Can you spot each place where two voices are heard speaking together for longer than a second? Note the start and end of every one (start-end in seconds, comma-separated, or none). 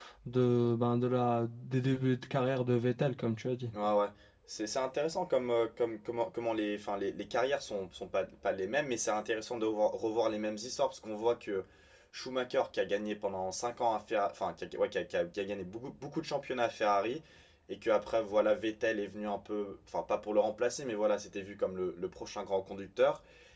none